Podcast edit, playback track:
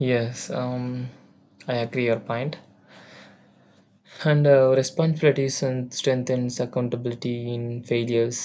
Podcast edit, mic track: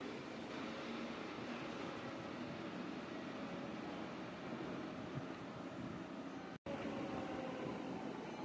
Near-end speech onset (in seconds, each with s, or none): none